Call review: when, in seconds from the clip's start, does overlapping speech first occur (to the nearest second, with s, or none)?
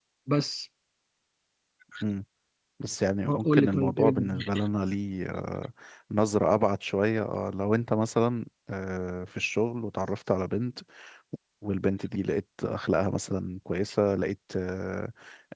3 s